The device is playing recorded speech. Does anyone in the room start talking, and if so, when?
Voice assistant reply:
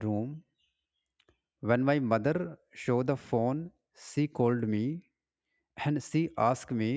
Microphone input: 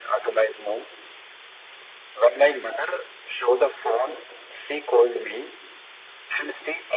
none

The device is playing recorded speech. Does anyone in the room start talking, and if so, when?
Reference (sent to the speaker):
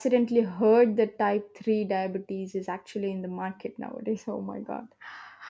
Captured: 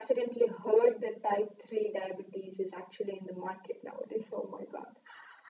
none

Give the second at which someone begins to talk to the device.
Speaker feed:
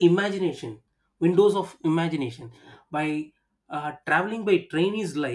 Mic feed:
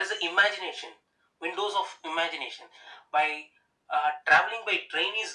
none

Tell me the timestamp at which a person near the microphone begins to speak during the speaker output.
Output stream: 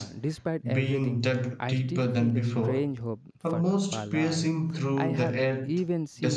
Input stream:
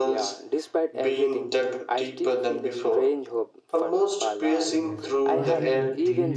5 s

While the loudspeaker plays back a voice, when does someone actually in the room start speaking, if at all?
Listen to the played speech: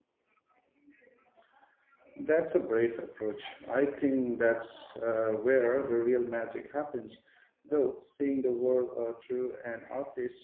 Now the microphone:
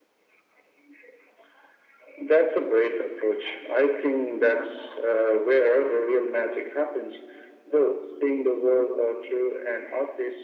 none

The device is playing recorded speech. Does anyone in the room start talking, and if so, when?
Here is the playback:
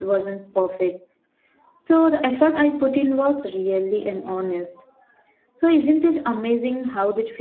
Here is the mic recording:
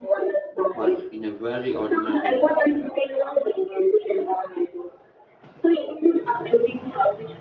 1 s

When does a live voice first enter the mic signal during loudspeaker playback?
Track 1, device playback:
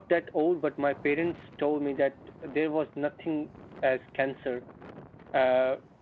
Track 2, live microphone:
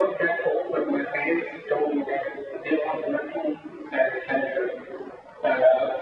none

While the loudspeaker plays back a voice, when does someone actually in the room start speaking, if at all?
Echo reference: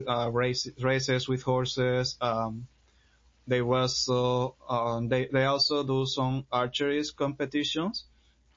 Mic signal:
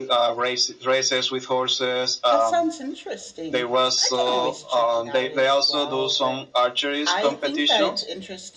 2 s

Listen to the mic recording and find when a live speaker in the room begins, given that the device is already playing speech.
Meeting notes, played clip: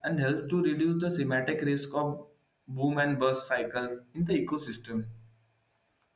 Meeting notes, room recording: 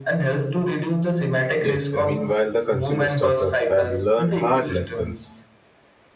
2 s

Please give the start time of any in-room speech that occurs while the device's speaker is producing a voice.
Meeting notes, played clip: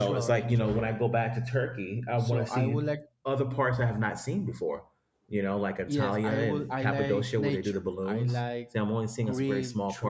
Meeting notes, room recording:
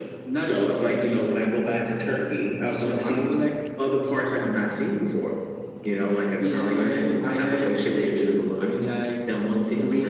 none

